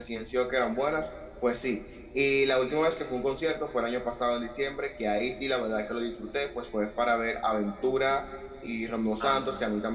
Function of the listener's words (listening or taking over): listening